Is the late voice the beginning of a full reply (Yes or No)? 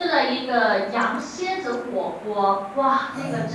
No